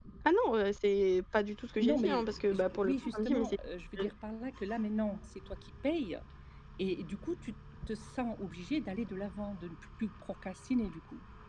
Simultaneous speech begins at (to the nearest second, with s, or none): 2 s